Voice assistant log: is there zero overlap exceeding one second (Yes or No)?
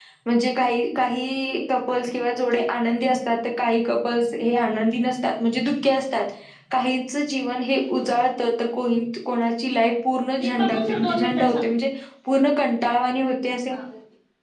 No